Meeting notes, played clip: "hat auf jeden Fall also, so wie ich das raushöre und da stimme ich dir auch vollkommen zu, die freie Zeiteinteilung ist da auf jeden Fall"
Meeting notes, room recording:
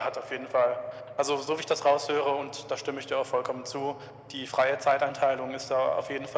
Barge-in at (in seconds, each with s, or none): none